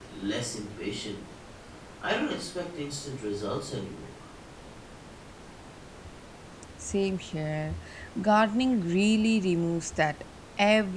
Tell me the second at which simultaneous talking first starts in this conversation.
none

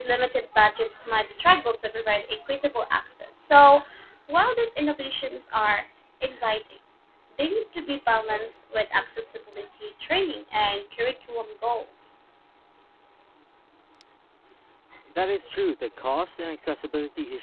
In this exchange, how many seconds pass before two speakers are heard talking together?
none

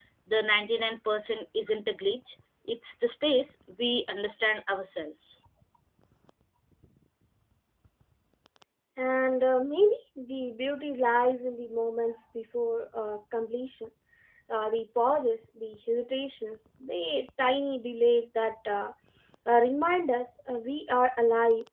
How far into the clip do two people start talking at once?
none

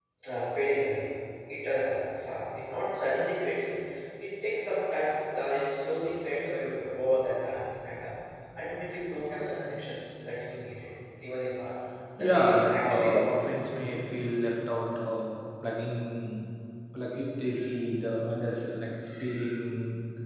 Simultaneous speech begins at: 12.2 s

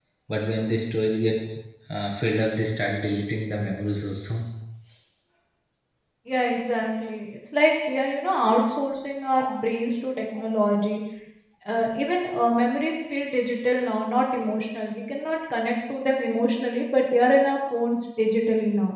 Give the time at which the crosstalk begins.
none

